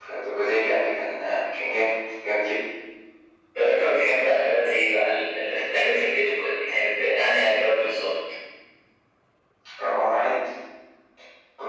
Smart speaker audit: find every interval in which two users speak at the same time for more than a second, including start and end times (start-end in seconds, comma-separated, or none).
none